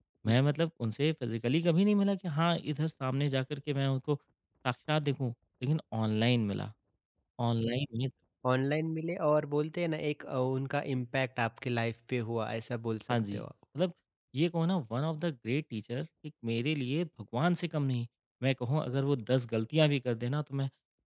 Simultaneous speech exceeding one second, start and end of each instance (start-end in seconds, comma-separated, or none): none